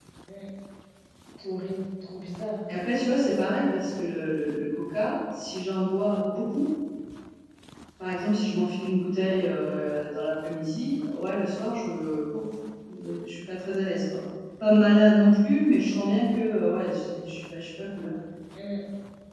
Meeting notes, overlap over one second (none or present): none